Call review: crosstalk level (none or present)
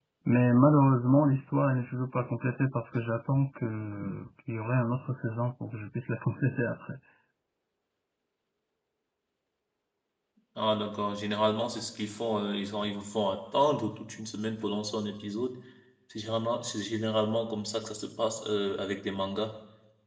none